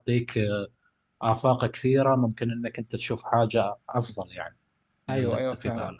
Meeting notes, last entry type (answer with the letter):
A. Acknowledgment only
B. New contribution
B